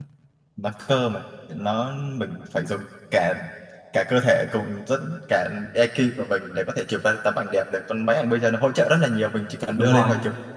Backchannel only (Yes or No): Yes